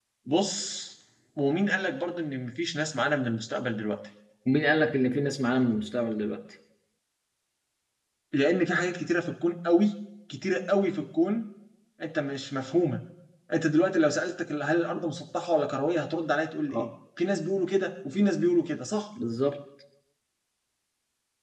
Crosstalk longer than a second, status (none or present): none